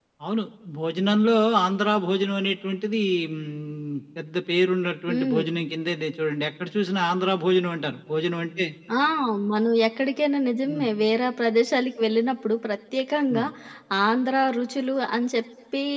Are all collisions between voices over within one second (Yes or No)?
Yes